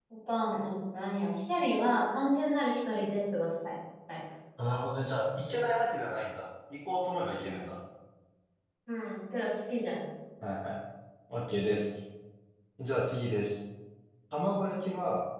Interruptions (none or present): none